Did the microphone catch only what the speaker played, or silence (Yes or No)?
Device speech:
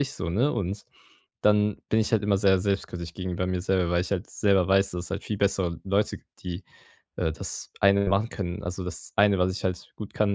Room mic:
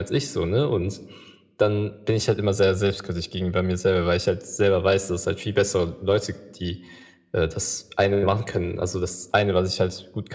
Yes